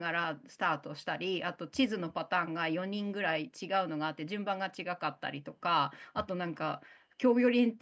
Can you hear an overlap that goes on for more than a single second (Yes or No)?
No